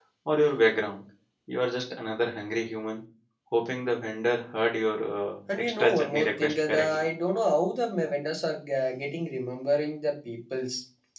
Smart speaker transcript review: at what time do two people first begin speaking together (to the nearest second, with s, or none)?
5 s